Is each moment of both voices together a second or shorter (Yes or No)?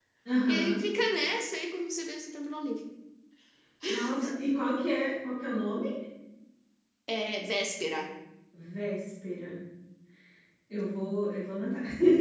Yes